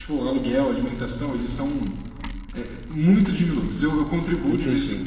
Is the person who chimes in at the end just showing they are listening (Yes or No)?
Yes